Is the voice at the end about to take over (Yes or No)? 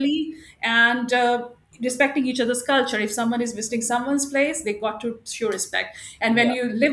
Yes